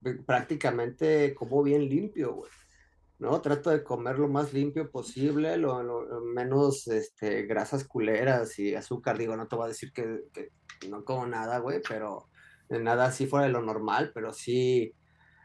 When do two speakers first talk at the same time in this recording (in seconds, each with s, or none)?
none